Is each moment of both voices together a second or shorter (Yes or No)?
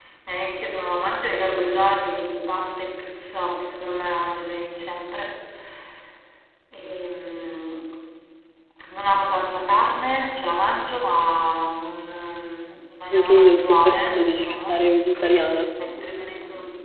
No